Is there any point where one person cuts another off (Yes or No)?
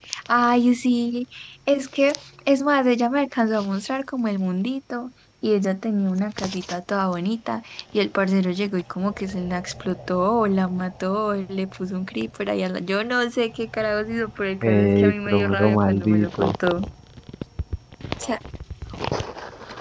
Yes